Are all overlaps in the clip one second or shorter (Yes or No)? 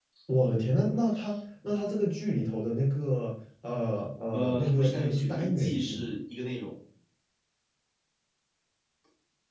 No